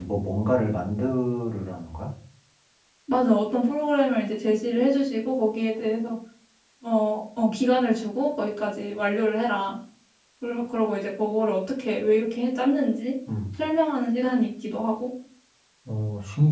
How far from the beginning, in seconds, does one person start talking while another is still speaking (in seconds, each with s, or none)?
none